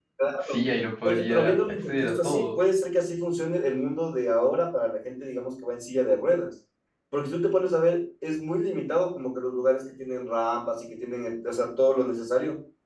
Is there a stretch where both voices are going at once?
Yes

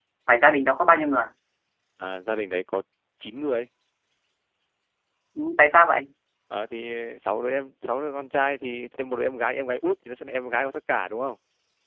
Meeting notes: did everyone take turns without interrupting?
Yes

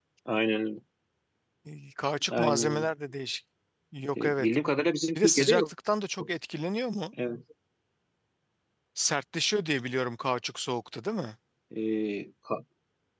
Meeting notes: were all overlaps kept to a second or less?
Yes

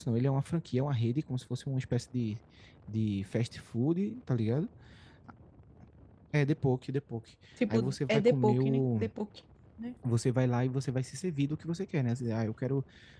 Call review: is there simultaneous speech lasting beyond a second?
Yes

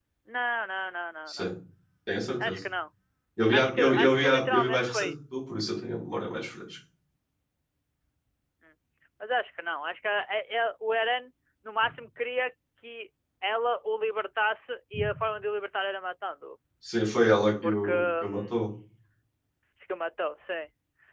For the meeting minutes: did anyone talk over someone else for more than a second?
Yes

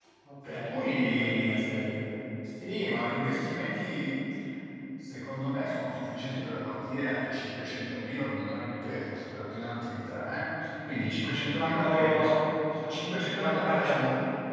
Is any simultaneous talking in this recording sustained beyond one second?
Yes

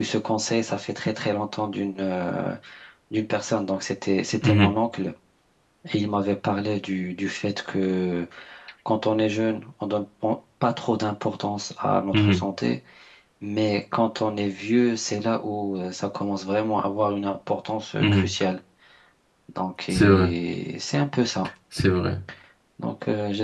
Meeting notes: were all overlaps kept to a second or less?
Yes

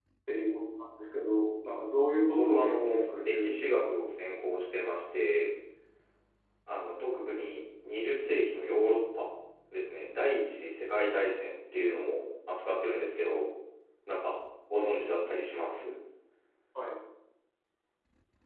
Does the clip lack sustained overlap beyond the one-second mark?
No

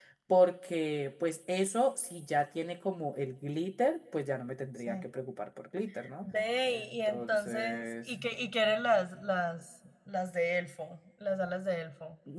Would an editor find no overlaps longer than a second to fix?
No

